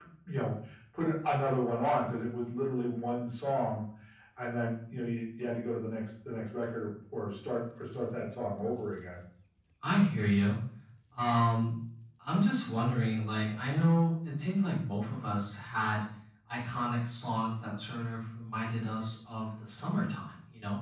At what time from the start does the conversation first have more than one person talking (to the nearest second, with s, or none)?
none